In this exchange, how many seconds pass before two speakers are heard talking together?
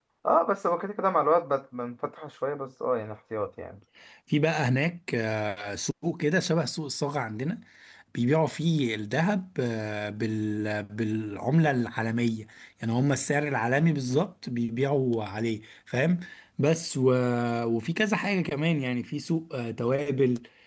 none

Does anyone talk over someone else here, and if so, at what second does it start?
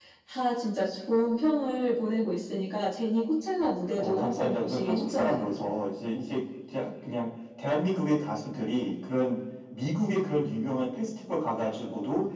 4 s

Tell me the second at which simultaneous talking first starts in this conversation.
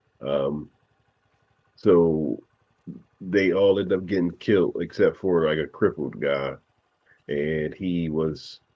none

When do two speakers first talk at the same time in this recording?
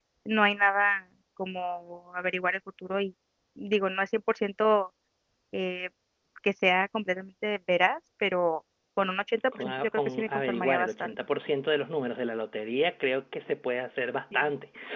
10 s

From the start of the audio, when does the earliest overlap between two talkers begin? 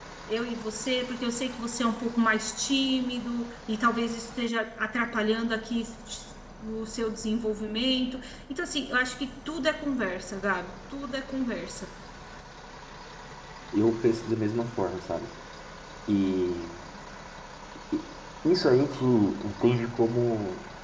none

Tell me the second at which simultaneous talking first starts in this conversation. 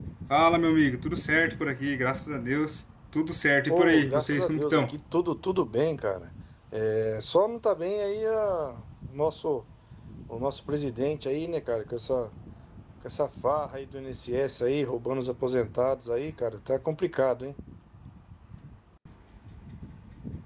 4 s

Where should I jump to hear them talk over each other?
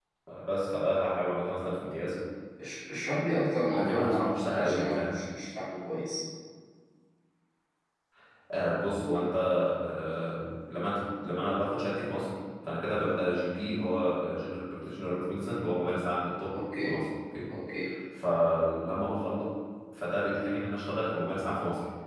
4 s

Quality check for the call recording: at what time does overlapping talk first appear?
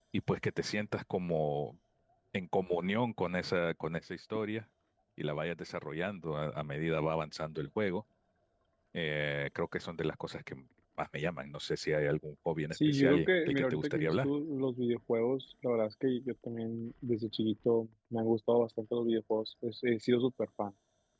13 s

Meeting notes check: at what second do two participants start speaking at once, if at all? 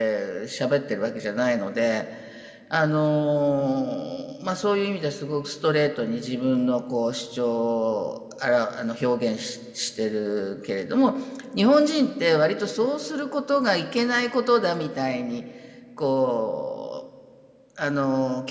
none

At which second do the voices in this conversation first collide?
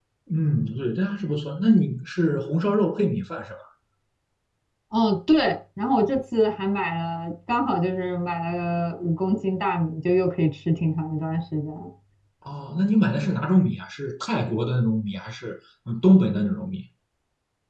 none

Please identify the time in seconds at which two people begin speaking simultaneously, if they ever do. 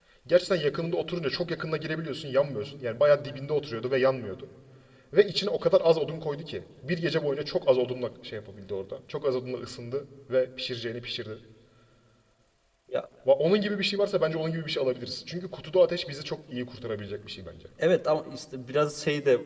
none

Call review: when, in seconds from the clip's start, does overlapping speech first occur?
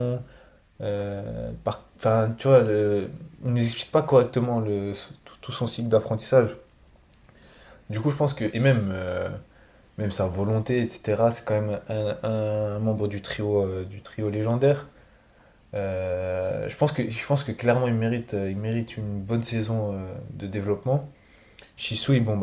none

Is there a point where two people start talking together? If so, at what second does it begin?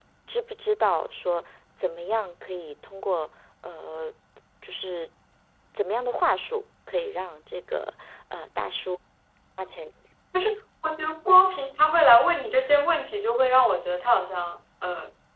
none

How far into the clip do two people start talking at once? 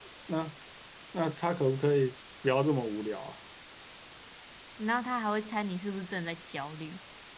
none

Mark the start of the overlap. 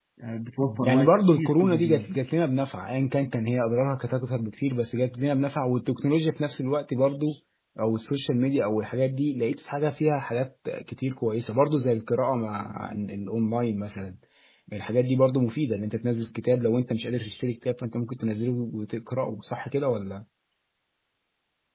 1 s

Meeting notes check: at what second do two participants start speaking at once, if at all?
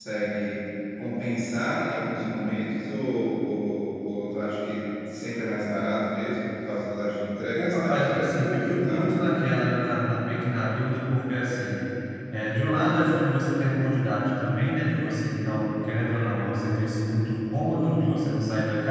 8 s

